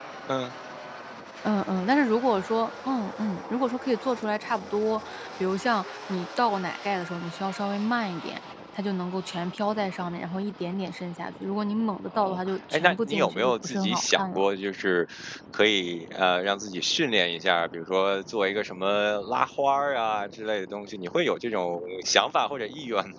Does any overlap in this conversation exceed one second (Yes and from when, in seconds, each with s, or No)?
Yes, from 12.1 s